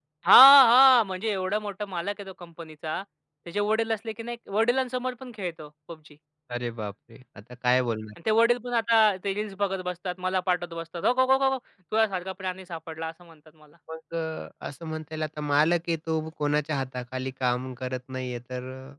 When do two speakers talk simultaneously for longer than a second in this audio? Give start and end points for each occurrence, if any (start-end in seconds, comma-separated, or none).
none